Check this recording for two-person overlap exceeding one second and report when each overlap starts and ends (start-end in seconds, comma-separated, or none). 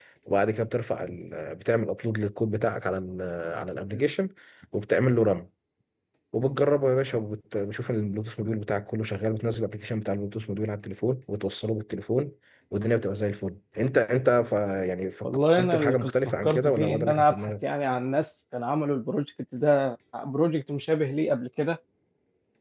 15.2-17.5